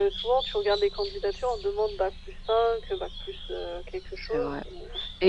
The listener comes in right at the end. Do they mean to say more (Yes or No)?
Yes